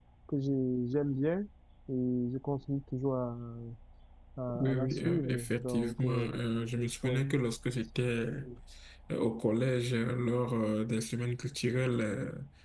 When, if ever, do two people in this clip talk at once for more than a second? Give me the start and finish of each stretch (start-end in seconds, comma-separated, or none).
4.6-6.3